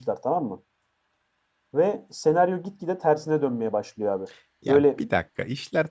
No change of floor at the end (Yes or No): No